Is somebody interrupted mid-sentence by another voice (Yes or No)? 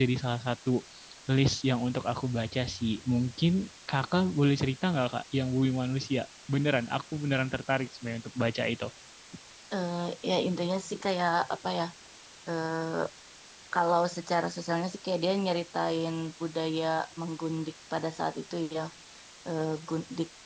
No